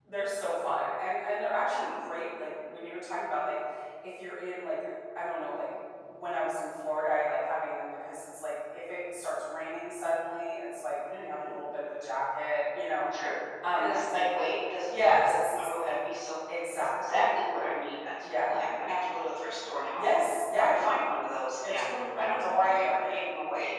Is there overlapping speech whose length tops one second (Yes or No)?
Yes